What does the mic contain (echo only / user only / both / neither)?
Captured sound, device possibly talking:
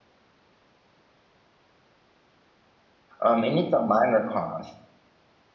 user only